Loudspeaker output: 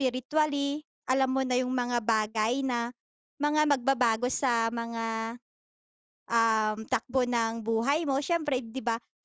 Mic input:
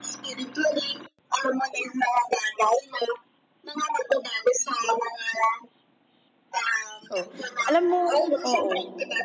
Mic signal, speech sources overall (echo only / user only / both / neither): both